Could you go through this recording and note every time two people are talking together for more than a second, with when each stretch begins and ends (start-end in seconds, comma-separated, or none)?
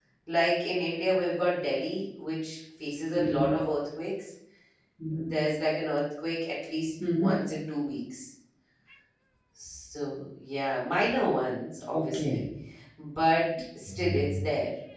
none